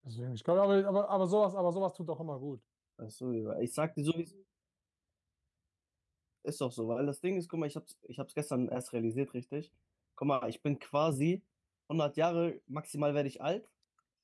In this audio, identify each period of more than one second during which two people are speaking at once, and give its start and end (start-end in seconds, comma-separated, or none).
none